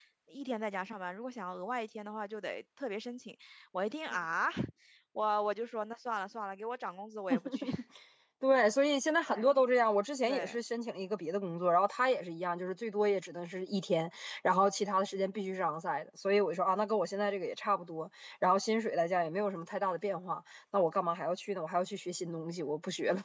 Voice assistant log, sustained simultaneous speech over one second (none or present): none